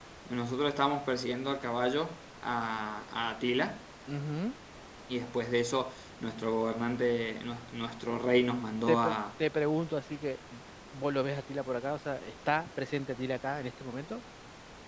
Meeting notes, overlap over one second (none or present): none